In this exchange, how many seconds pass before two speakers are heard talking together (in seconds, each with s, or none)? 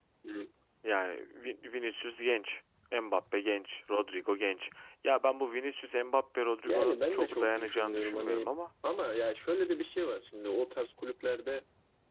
6.6 s